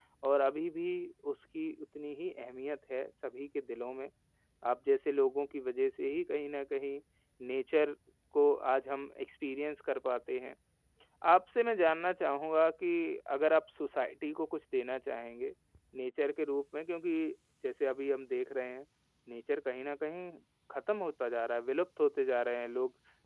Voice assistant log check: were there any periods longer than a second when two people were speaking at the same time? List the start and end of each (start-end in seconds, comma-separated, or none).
none